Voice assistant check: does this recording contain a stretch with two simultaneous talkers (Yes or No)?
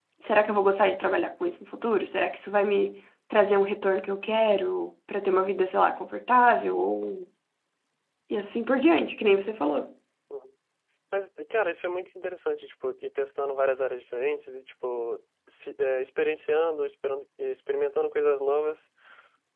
No